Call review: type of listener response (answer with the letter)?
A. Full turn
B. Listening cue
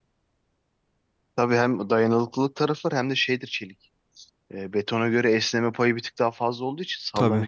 B